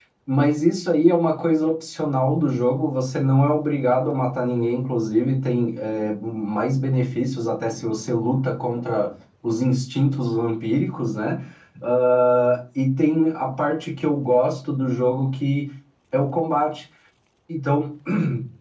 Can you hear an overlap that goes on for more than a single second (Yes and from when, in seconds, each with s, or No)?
No